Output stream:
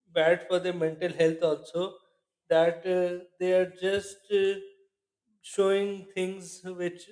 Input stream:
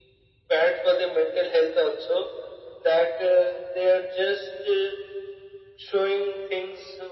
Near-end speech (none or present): none